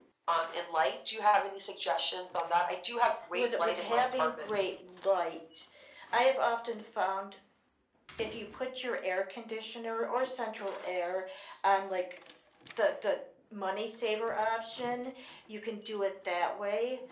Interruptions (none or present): present